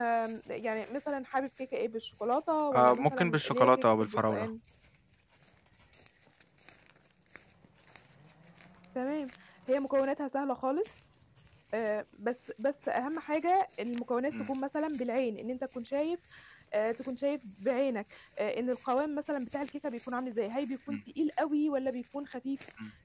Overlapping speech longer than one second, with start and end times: 2.7-4.5

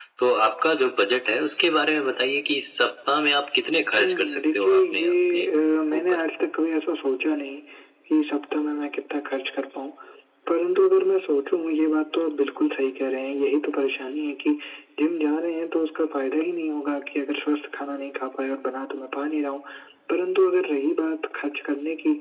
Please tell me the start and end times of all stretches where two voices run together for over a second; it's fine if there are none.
4.0-5.4

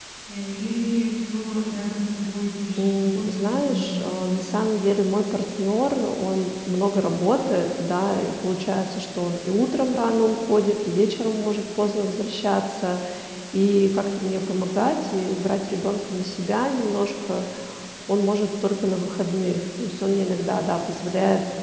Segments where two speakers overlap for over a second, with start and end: 2.8-4.2

